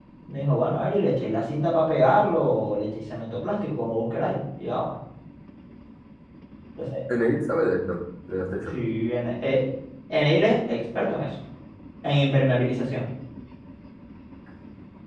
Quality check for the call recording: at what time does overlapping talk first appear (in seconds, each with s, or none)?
none